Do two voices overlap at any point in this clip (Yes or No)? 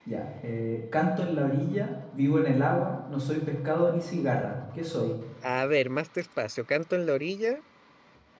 No